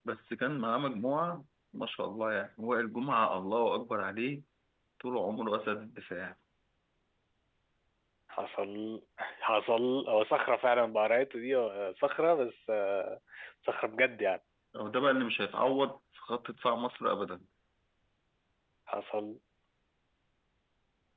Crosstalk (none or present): none